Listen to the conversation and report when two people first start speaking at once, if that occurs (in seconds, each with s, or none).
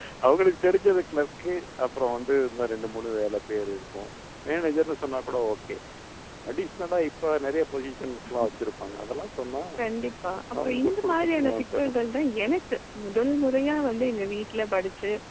10.6 s